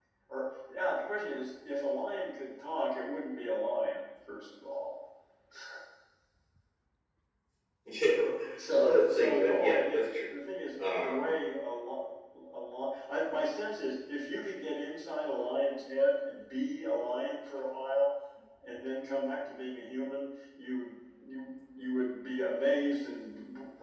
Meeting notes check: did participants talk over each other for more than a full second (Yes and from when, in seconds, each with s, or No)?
Yes, from 8.8 s